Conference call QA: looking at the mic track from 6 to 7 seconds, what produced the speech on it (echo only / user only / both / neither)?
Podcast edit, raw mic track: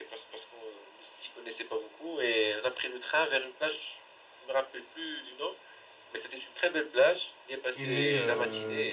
echo only